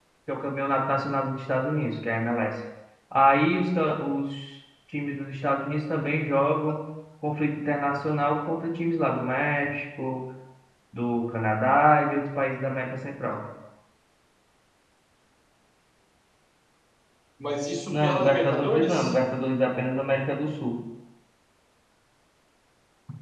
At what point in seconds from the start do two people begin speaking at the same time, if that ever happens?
17.9 s

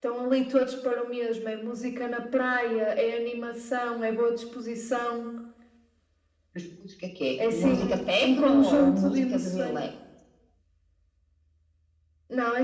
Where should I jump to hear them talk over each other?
7.4 s

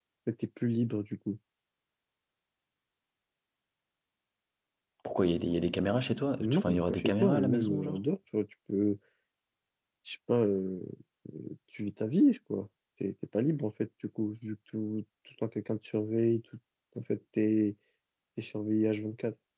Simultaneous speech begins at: 6.4 s

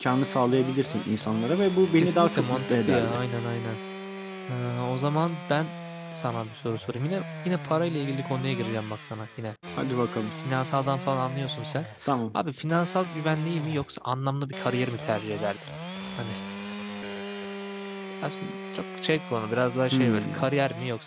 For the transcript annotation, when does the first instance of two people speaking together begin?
1.9 s

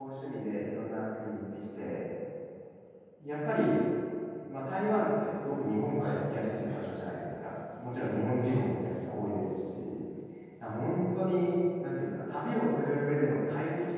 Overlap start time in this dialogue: 6.0 s

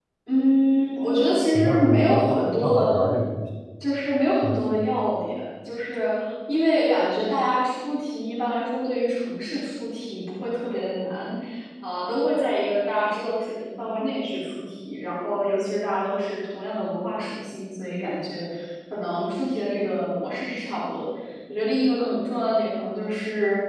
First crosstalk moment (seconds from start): 1.5 s

